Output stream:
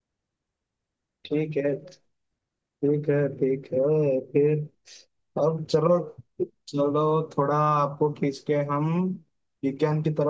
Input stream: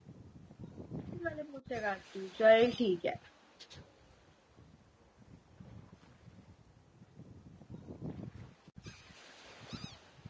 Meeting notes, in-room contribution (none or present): present